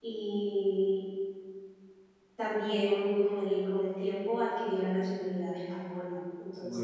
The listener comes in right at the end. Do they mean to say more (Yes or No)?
No